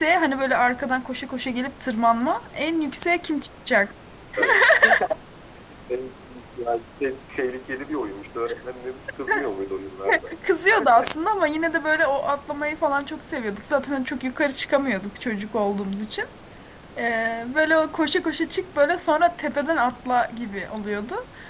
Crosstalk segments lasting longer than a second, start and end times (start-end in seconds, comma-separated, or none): none